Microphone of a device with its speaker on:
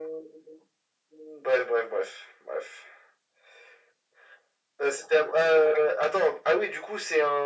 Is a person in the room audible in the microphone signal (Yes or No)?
No